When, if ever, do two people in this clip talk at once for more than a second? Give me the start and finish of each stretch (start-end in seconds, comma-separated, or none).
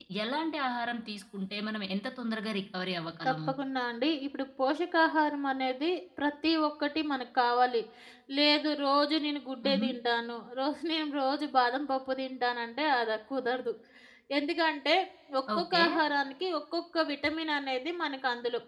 none